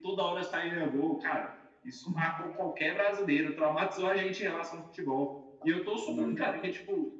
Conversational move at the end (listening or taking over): listening